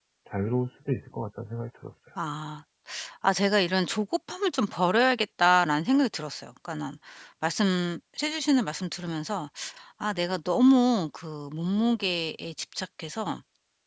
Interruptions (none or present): none